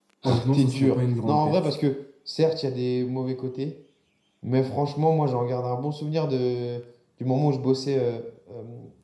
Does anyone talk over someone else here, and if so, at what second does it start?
1 s

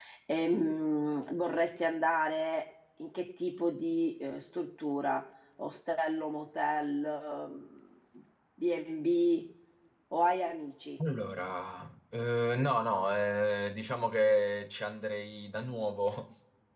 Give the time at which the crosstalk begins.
none

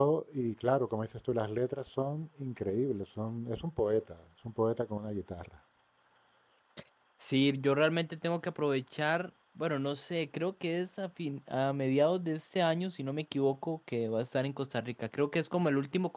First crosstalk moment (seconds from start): none

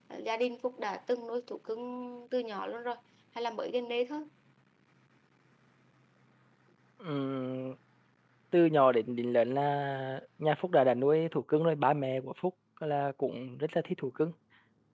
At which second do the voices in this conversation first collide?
none

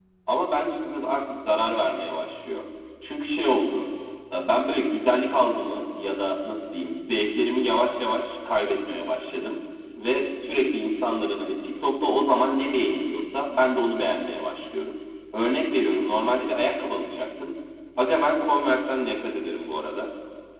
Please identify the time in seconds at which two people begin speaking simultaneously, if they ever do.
none

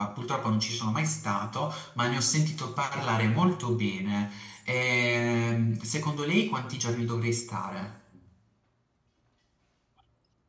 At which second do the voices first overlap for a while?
none

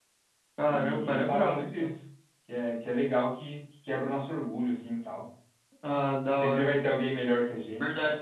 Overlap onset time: 1 s

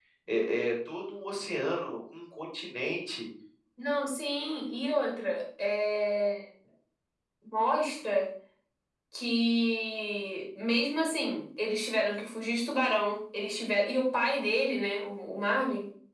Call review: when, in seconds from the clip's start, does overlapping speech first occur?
none

